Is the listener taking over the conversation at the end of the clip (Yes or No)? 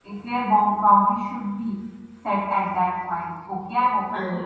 No